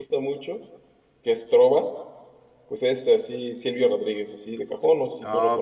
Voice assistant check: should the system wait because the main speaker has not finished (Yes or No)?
No